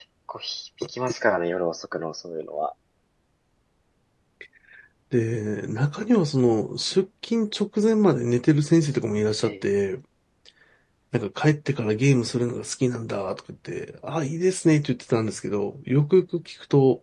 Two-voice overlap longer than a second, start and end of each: none

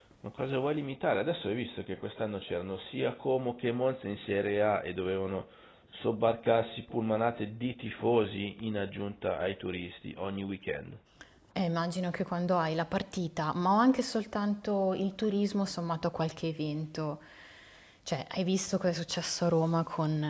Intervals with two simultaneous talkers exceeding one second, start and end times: none

